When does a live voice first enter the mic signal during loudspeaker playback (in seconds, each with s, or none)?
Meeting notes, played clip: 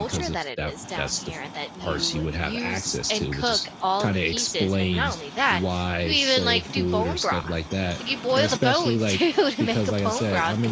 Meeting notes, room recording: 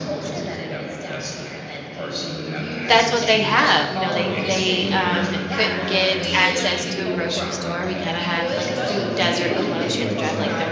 2.9 s